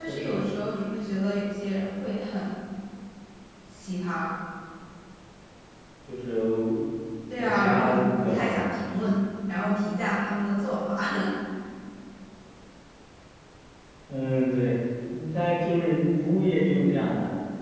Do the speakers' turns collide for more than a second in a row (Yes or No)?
Yes